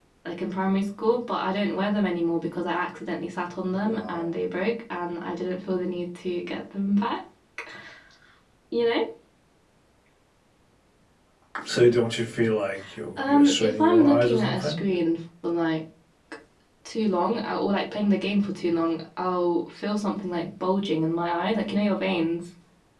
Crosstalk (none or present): present